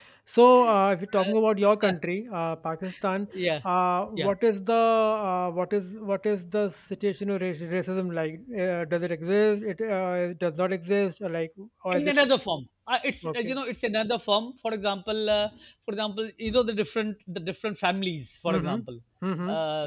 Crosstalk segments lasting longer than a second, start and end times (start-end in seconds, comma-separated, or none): none